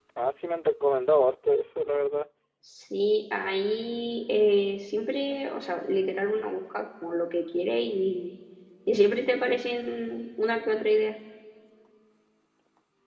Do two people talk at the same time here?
No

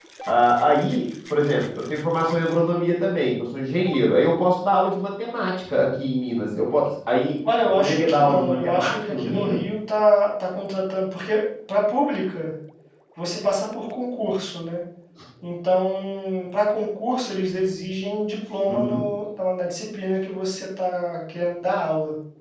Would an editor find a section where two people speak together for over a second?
Yes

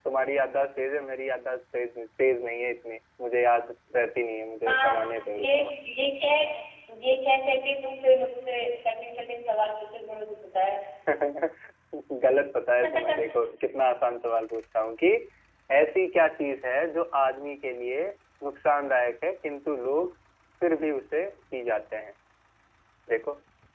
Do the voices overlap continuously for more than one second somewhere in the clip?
No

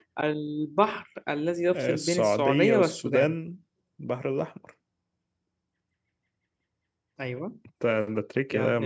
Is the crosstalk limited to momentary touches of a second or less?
No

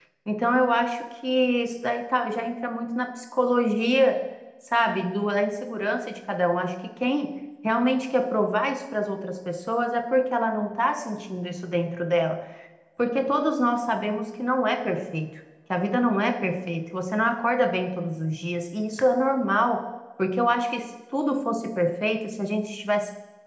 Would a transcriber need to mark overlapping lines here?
No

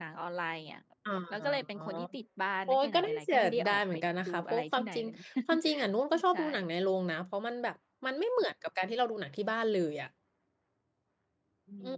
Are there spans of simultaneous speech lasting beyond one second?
Yes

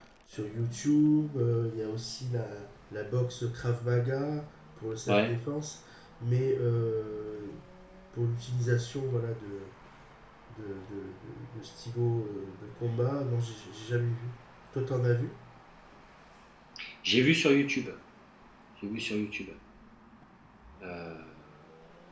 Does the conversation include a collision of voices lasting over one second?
No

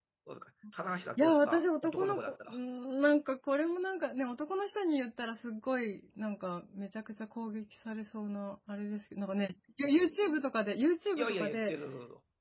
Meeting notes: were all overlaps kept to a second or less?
No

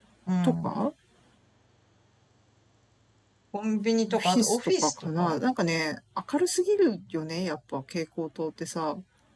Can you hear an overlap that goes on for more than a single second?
Yes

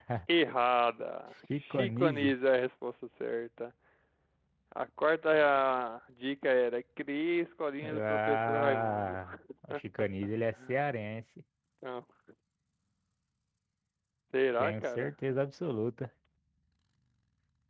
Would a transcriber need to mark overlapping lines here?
Yes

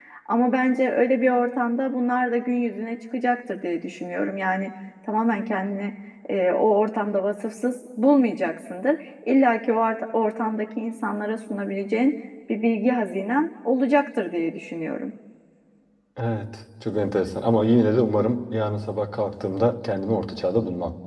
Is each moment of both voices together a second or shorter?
Yes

